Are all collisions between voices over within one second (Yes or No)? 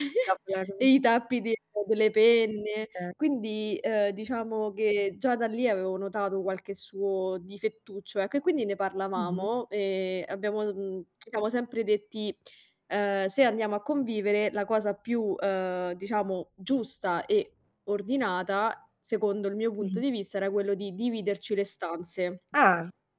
Yes